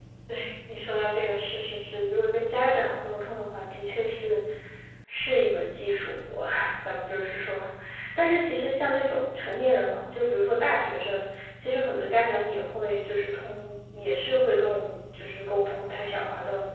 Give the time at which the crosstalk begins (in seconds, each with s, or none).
none